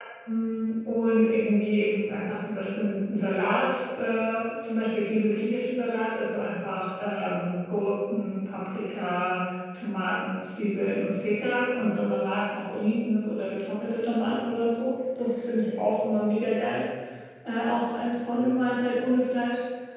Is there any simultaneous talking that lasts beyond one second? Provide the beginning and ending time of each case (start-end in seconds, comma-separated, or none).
none